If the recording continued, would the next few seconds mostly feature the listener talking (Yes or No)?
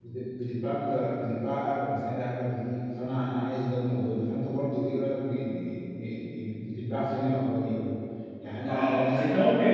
Yes